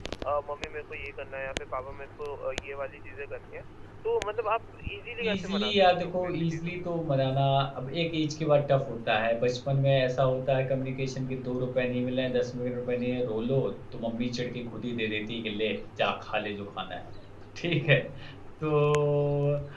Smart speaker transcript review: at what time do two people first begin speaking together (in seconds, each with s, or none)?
5.2 s